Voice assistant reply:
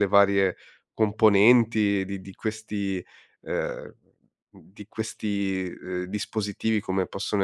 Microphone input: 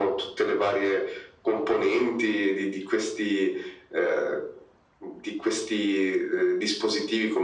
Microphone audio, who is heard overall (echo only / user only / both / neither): echo only